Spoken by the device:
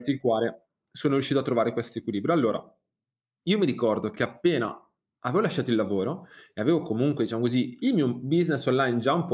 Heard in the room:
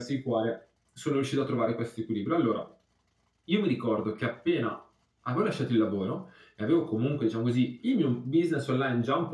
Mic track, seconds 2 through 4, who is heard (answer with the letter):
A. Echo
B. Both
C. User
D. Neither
A